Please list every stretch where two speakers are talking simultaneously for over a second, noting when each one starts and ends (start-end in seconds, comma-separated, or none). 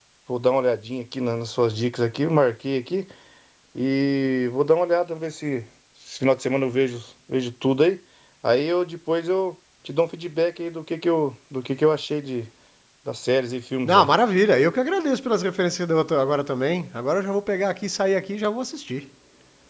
none